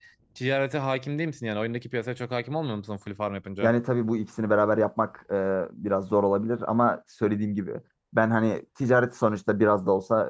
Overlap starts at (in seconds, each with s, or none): none